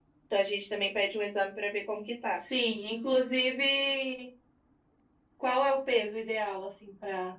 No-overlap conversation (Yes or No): Yes